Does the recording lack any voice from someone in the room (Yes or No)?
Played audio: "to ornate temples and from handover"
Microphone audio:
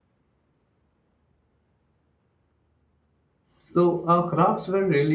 No